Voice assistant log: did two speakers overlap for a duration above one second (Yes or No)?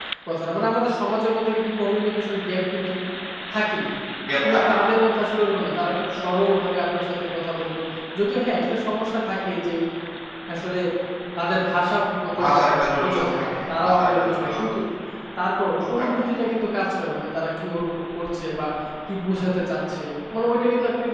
Yes